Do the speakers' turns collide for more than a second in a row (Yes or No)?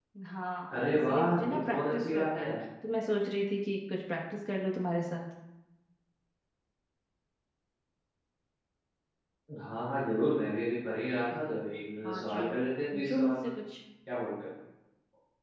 Yes